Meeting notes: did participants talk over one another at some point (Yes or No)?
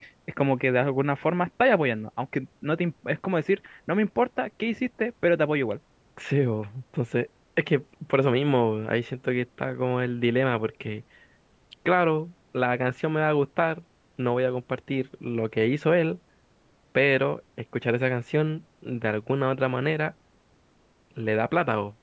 No